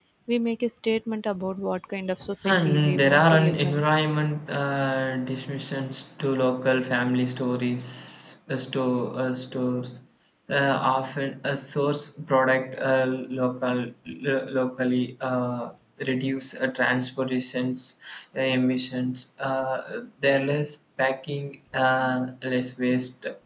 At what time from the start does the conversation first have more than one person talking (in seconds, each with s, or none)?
2.4 s